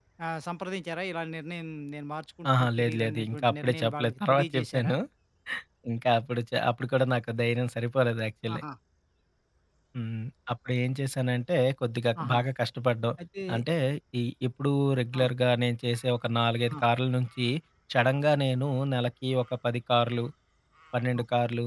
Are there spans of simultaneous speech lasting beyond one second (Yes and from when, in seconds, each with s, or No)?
Yes, from 2.6 s